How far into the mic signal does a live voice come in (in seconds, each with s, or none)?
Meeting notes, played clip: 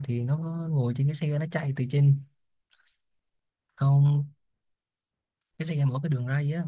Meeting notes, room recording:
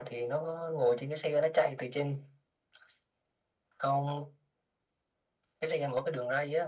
none